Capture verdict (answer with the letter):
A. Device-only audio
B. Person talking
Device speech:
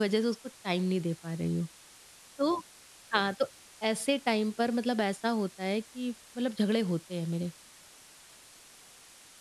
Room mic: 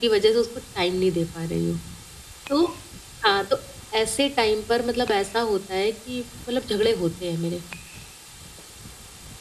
A